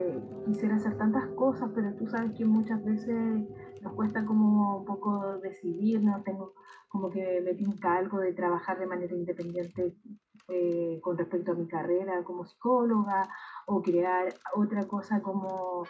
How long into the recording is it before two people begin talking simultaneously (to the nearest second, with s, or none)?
none